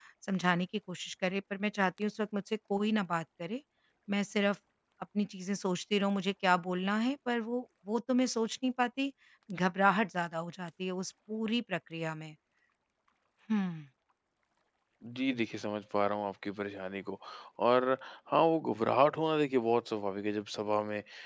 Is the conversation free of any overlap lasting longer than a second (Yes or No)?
Yes